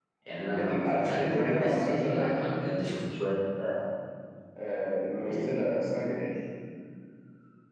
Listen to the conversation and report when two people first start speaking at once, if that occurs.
0.6 s

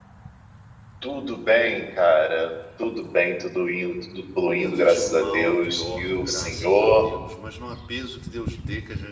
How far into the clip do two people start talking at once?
4.6 s

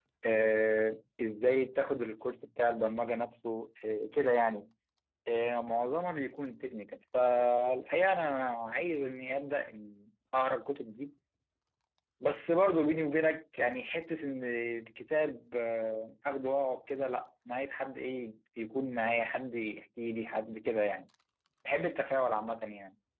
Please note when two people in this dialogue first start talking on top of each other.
none

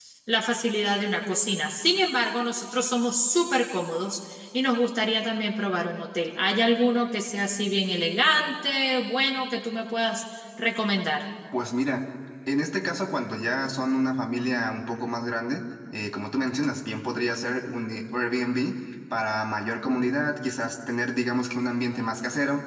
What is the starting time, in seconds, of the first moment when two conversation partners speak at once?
none

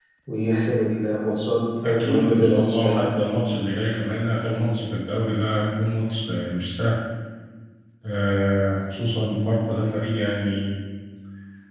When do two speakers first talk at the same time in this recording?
1.8 s

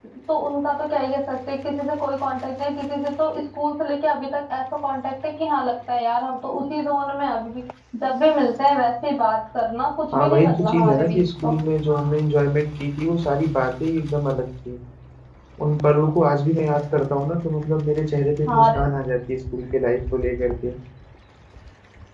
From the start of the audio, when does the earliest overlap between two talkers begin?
10.1 s

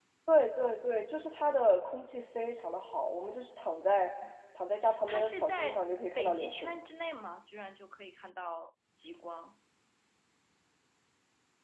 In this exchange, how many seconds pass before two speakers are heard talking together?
5.1 s

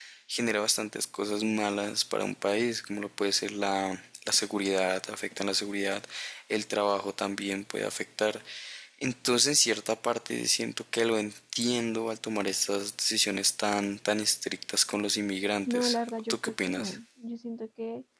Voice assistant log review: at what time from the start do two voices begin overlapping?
15.7 s

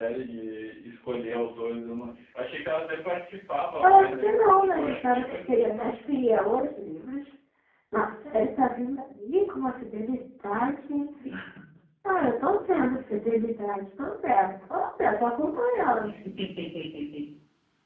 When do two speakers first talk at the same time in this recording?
3.8 s

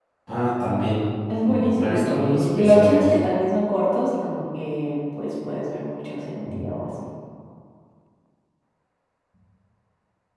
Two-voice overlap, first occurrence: 1.3 s

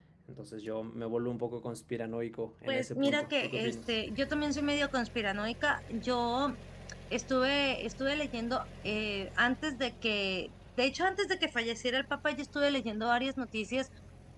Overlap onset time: 2.7 s

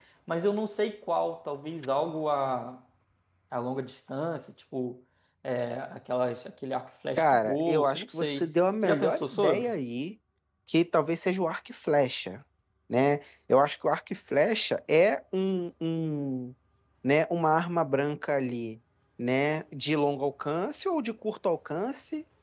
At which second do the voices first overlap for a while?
7.2 s

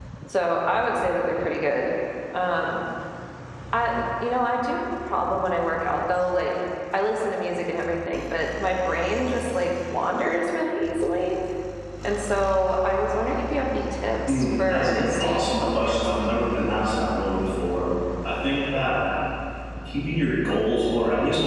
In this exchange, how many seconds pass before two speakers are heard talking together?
14.3 s

